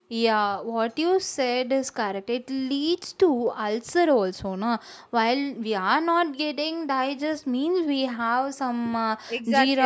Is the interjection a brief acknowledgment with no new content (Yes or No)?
No